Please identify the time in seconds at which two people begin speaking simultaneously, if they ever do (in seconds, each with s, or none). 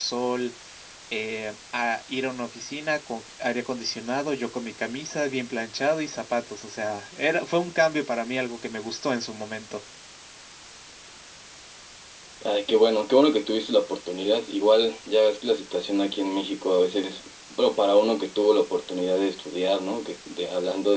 none